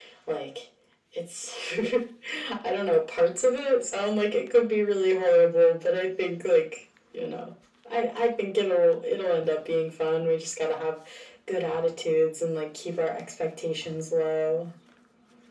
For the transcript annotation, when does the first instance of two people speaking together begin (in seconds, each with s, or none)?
none